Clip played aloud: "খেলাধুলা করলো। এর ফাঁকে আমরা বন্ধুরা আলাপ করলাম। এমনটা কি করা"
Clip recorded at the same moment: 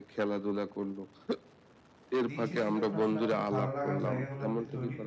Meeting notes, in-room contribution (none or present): present